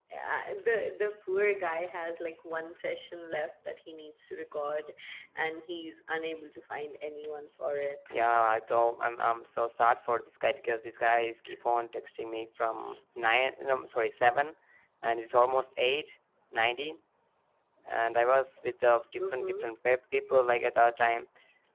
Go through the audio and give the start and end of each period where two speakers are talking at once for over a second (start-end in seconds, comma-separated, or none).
none